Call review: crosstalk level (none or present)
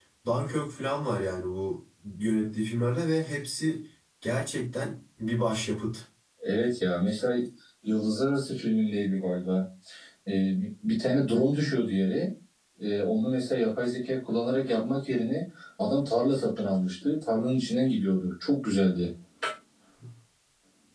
none